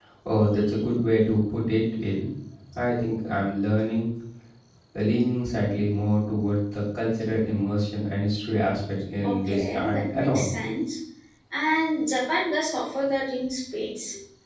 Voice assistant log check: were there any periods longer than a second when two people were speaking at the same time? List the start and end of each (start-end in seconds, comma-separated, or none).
9.2-10.5